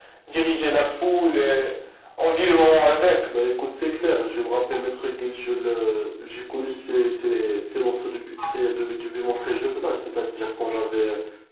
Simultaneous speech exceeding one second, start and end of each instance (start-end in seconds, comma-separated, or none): none